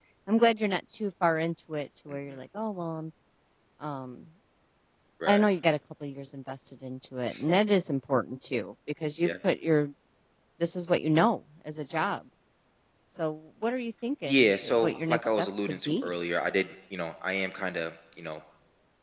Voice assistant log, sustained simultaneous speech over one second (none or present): present